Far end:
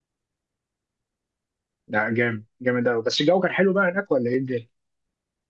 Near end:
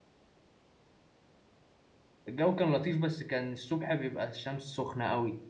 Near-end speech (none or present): present